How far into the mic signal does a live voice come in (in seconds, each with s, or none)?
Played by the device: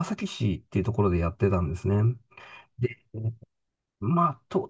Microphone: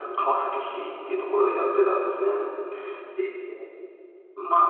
none